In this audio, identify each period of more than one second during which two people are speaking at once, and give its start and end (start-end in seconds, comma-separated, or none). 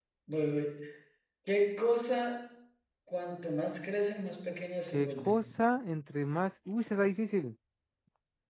none